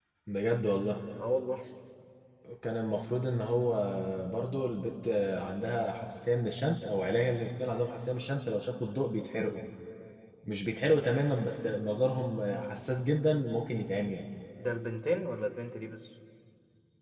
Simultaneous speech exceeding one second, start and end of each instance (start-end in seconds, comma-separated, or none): none